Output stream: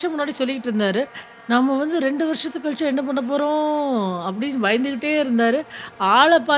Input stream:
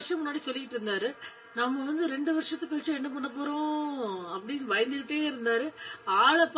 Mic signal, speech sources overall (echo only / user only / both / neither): echo only